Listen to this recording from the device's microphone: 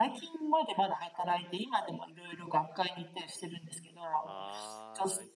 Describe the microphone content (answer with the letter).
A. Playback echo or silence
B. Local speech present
B